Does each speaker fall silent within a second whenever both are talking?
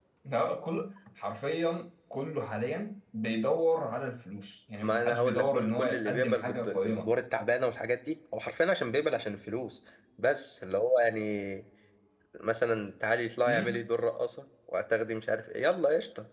No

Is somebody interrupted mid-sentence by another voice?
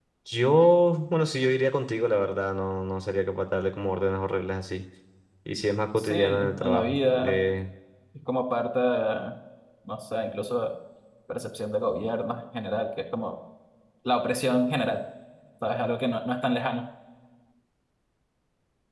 Yes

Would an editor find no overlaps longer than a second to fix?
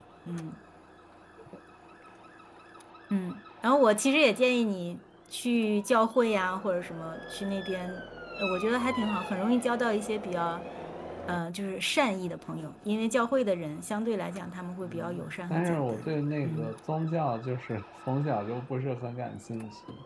No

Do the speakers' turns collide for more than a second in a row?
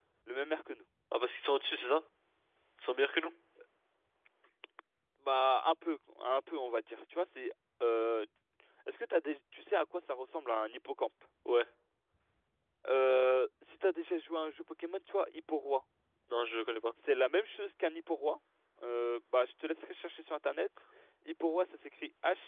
No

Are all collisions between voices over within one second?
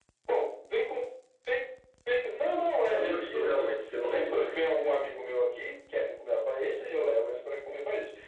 No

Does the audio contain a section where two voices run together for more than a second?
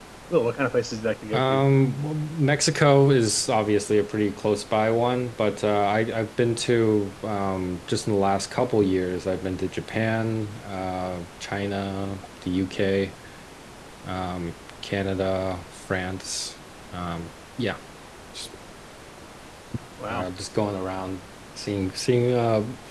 No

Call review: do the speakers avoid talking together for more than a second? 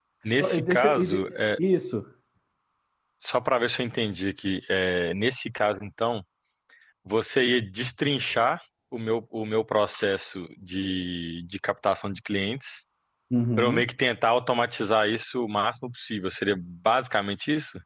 No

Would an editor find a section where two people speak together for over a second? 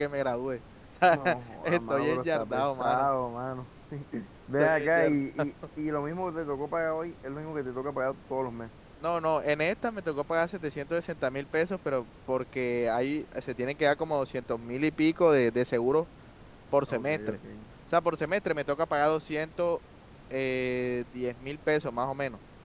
Yes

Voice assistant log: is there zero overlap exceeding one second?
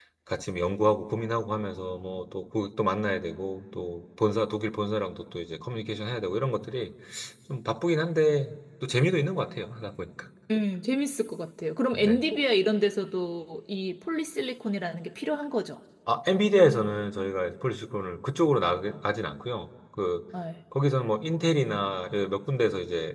Yes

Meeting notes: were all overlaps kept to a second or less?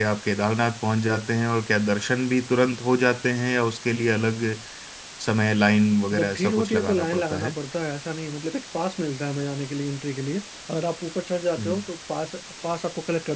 No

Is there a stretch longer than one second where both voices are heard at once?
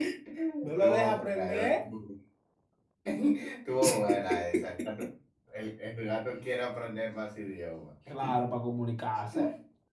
Yes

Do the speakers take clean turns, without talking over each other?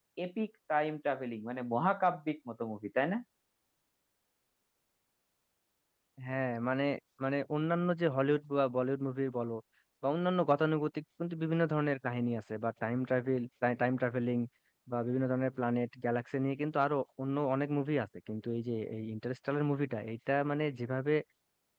Yes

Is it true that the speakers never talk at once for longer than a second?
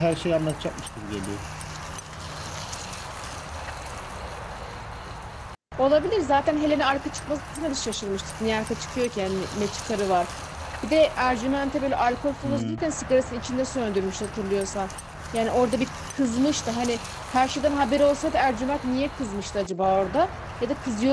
Yes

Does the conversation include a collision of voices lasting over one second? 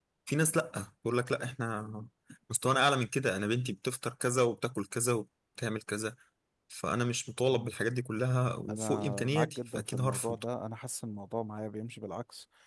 Yes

